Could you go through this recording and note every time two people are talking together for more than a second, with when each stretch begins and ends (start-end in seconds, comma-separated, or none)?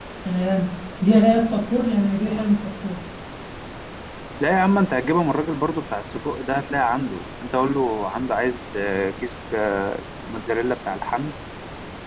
none